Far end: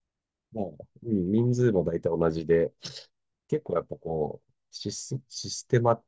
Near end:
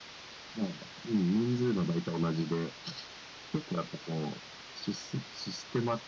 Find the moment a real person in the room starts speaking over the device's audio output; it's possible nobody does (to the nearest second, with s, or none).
none